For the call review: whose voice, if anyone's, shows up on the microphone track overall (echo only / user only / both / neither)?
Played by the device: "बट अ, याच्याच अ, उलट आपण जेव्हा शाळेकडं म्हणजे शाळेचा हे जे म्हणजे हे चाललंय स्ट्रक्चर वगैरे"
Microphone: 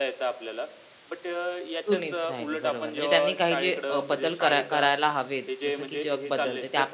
both